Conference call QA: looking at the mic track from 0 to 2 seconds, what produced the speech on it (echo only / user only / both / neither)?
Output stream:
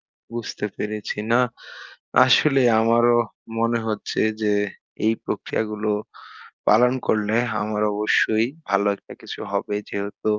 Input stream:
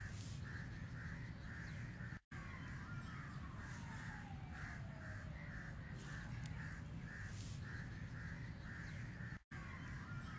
neither